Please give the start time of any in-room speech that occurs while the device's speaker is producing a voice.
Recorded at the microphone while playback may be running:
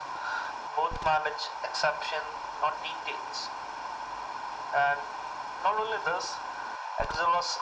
none

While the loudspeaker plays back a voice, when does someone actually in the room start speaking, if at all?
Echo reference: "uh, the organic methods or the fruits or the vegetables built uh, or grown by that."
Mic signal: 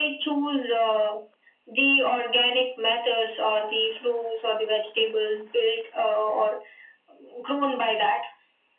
none

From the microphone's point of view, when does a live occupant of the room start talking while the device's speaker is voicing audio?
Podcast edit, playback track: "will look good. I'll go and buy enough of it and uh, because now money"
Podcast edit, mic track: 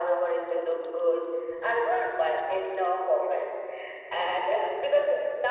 none

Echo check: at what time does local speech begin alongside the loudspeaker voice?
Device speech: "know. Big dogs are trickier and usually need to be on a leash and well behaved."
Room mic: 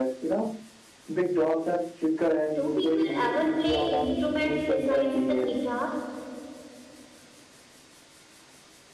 2.5 s

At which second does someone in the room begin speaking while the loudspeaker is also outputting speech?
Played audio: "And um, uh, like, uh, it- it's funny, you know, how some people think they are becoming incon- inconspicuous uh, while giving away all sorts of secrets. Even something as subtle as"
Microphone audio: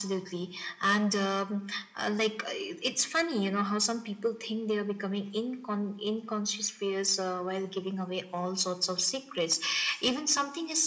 none

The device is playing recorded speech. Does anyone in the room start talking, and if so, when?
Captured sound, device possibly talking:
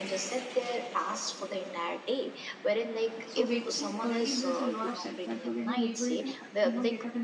3.2 s

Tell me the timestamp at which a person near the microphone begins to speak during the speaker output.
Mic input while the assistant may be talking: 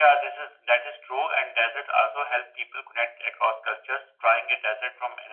none

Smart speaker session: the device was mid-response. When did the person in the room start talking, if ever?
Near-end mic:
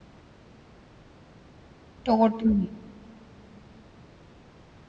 2.0 s

